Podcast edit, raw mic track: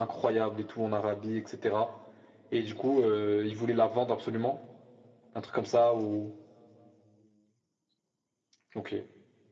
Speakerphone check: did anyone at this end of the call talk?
No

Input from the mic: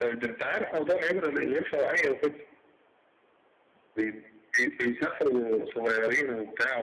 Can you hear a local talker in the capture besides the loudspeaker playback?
No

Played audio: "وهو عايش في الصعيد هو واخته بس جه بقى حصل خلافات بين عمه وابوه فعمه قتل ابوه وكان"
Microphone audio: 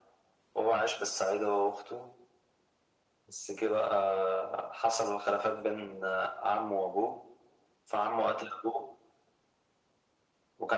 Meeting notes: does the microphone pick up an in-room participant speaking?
No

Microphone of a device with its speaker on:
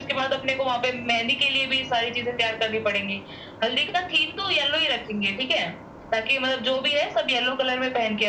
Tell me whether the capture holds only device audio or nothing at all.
Yes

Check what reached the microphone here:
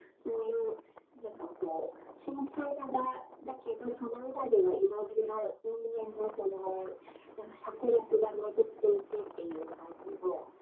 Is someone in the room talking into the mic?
No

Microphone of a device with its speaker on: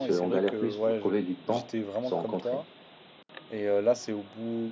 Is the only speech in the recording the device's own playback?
No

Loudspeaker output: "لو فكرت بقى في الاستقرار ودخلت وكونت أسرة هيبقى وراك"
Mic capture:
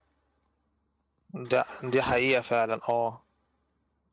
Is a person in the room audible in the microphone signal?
Yes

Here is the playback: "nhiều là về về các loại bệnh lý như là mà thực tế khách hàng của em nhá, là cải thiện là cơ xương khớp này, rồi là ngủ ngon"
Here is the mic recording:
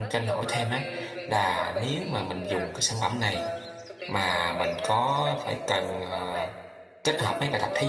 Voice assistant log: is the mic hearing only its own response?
No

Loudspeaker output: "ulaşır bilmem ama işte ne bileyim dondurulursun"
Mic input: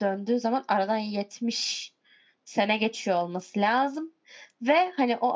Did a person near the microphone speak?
Yes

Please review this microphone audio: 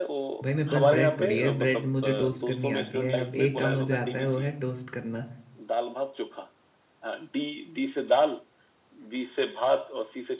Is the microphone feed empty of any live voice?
No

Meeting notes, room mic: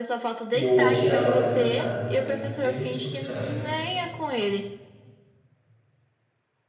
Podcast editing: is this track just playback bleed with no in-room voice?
No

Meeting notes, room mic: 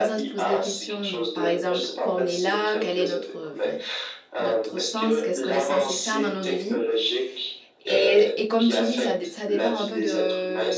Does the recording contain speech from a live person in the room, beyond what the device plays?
Yes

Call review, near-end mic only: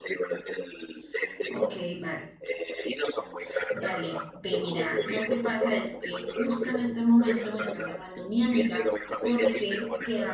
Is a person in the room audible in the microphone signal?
Yes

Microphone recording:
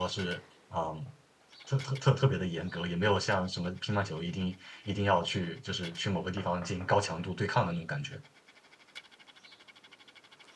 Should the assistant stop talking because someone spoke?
Yes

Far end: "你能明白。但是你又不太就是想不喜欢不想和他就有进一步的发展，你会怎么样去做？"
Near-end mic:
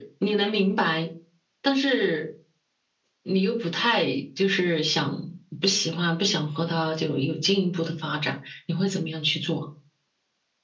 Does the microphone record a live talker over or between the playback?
No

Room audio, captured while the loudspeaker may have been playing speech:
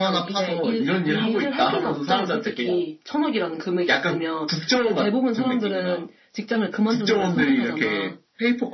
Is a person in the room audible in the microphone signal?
No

